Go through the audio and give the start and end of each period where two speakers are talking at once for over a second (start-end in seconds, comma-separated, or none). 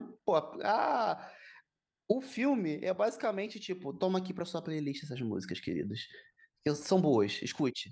none